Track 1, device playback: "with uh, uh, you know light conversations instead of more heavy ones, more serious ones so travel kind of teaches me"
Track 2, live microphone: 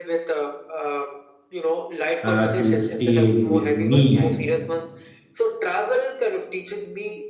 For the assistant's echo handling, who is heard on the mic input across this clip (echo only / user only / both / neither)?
both